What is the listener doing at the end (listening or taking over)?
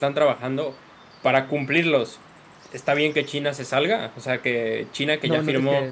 taking over